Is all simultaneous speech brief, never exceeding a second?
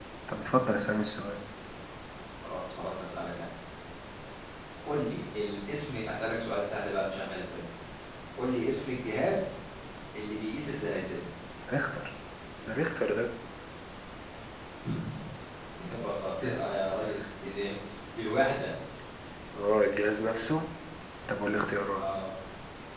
Yes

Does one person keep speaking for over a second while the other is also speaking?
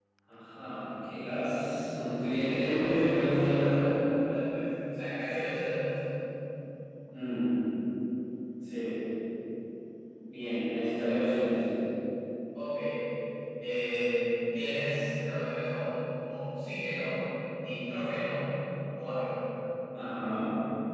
Yes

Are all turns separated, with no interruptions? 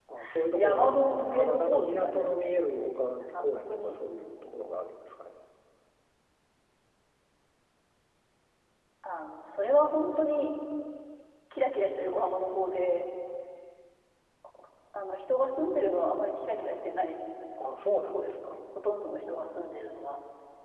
No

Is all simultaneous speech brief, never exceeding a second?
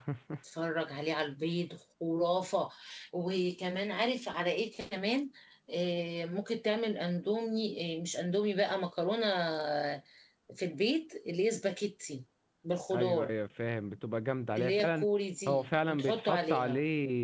No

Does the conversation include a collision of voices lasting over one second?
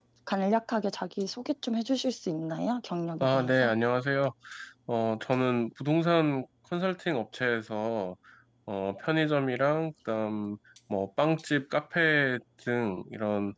No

